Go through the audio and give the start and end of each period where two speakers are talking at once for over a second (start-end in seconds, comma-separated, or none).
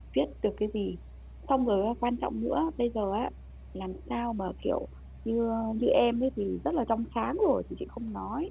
none